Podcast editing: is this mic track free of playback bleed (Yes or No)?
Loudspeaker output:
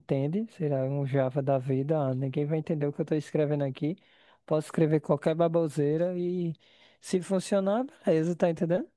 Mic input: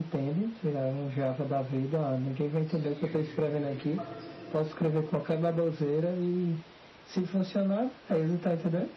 No